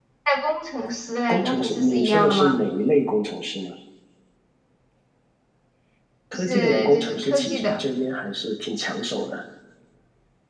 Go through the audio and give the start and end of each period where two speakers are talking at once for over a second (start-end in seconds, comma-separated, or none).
1.3-2.6, 6.3-7.8